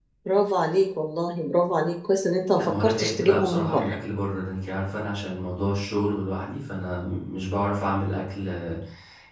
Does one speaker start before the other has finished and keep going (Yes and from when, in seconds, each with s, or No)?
Yes, from 2.6 s